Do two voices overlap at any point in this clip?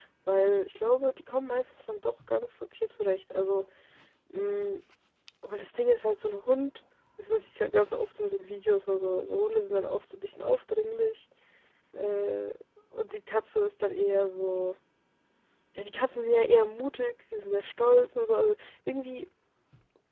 No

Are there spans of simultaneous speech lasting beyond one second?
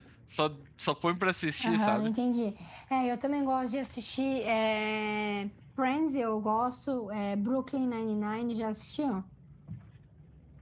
No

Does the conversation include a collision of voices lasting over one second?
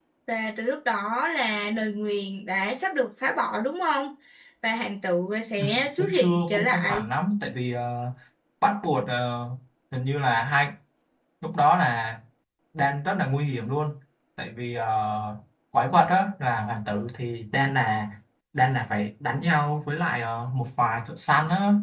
Yes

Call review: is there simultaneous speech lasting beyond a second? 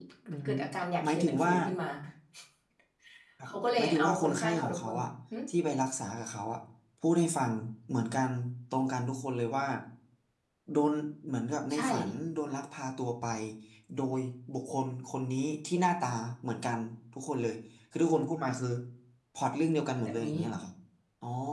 Yes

